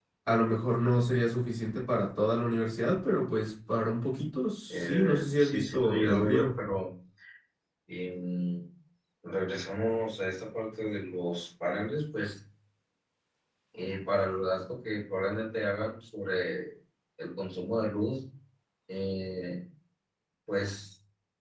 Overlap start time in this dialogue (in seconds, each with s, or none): 4.7 s